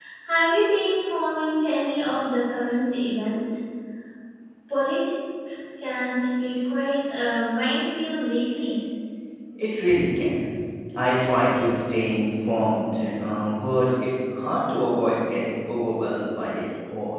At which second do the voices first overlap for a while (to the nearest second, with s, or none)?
none